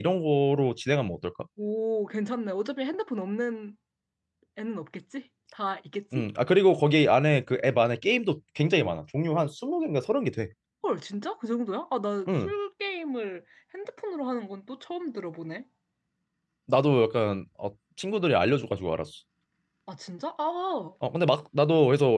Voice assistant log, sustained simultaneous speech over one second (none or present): none